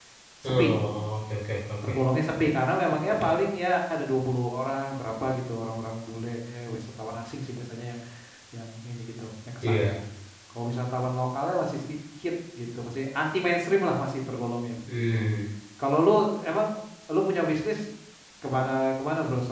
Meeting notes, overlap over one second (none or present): none